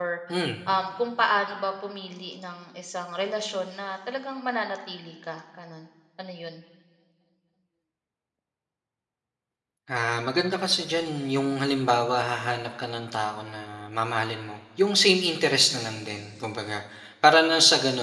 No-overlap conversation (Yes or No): Yes